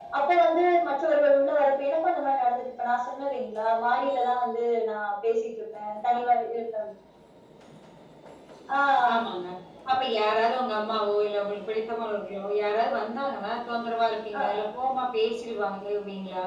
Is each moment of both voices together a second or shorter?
Yes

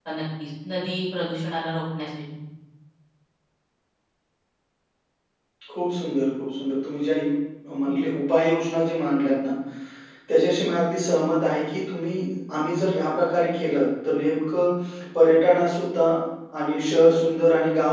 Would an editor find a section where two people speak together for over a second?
No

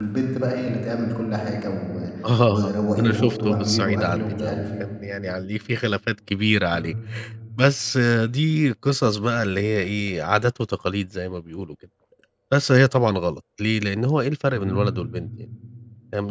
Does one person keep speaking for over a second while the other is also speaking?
Yes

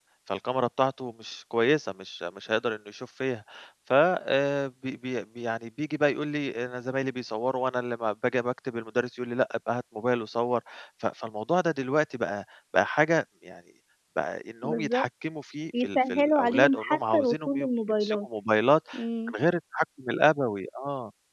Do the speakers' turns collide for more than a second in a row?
Yes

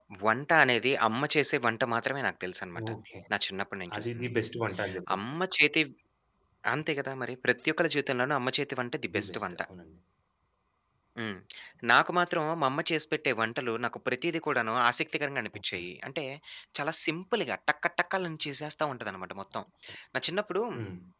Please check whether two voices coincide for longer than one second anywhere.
No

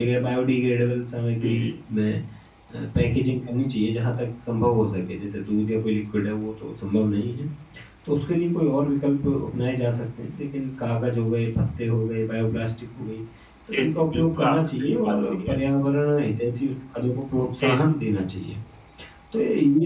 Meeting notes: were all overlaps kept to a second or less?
No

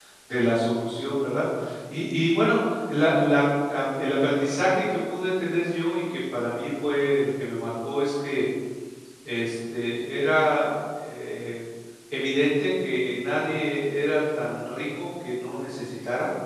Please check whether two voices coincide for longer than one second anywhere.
No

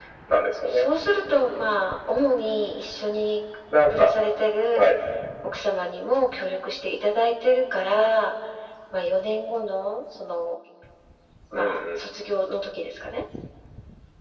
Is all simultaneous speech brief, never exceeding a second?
Yes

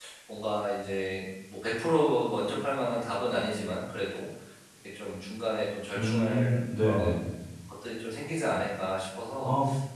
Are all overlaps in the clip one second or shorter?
No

